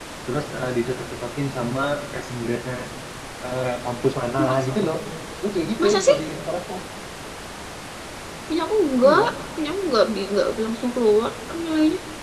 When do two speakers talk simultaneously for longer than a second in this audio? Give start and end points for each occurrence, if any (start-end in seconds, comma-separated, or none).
none